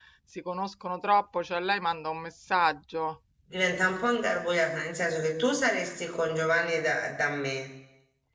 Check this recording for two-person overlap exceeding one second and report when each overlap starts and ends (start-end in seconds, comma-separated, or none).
none